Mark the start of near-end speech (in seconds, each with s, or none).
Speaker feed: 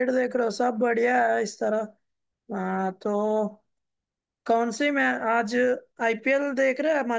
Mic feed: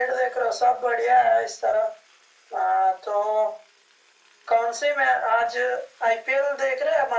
none